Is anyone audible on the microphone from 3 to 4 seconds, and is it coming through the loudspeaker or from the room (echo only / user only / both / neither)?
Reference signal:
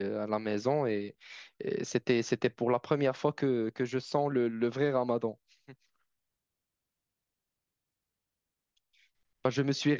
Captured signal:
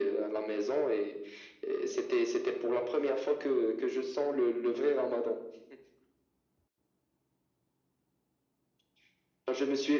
echo only